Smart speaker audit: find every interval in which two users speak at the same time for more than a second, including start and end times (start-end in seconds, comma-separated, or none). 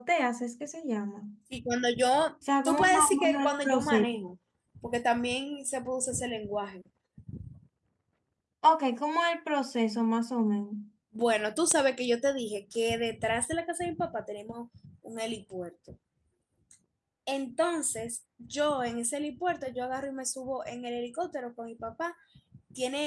2.6-4.1